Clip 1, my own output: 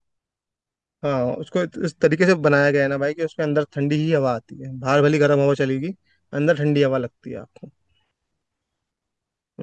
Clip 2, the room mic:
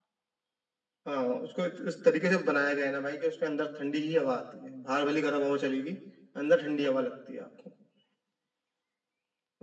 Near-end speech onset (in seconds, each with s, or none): none